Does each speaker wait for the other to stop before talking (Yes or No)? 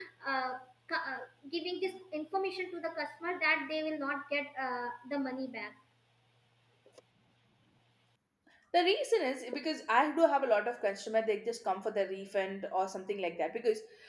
Yes